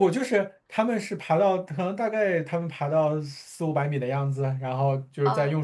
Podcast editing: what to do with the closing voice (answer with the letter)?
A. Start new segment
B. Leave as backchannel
B